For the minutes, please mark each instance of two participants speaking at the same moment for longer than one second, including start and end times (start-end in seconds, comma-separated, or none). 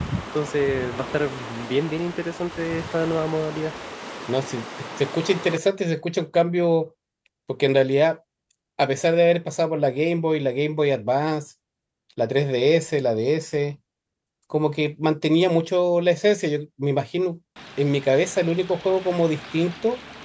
none